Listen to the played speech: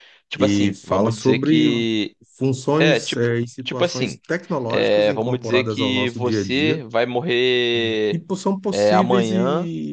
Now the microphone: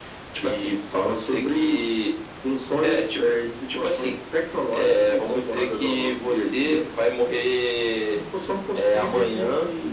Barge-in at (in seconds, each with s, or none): none